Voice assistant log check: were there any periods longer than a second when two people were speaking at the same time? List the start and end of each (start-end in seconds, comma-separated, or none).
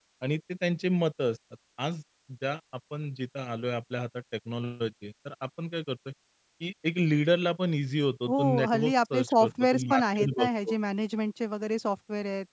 8.3-10.7